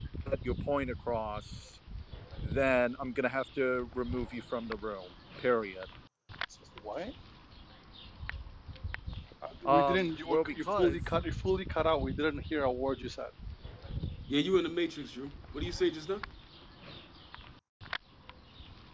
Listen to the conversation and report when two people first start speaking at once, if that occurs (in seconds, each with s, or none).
9.7 s